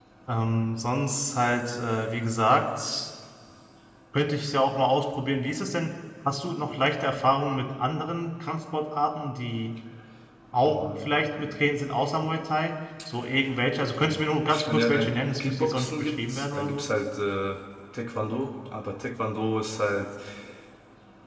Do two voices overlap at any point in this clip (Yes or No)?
Yes